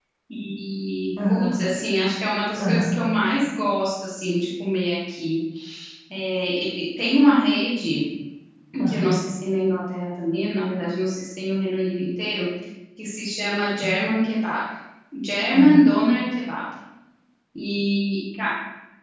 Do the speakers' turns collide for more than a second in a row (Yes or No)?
No